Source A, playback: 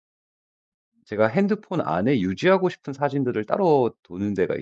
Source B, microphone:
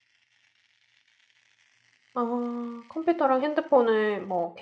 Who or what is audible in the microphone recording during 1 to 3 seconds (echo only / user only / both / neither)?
user only